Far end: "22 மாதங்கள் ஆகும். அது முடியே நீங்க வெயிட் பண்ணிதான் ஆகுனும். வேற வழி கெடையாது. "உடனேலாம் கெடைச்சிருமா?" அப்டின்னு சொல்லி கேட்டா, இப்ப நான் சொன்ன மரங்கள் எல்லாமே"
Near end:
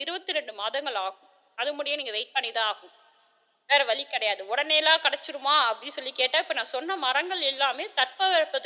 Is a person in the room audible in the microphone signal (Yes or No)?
No